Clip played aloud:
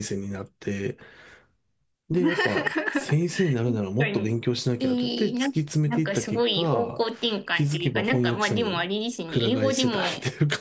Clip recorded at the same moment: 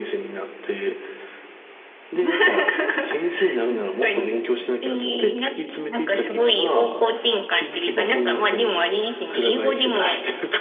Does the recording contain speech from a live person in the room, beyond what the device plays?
No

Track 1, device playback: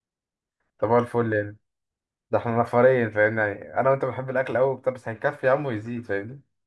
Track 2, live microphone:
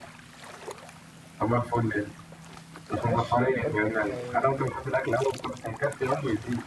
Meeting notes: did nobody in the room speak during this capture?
No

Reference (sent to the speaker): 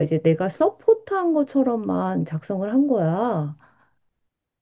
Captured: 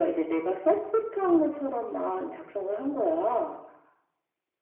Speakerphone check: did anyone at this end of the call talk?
No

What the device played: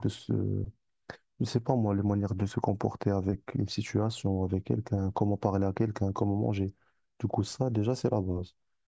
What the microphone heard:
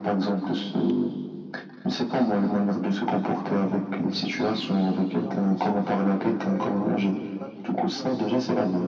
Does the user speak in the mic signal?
Yes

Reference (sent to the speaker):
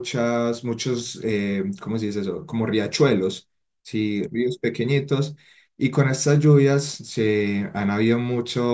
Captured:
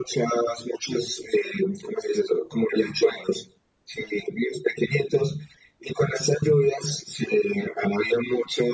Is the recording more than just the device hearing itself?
No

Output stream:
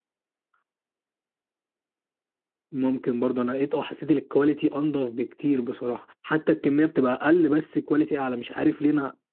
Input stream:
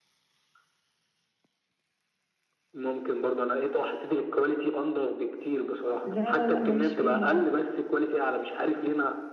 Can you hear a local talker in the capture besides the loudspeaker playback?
Yes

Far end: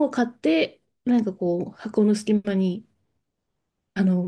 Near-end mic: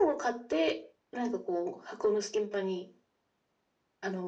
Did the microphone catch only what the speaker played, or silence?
Yes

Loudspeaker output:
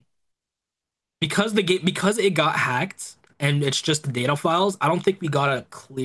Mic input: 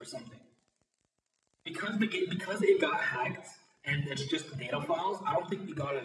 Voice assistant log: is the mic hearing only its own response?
Yes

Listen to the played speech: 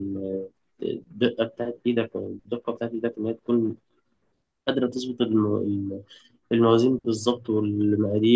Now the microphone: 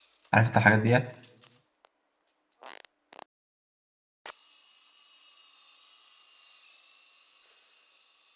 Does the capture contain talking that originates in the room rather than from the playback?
Yes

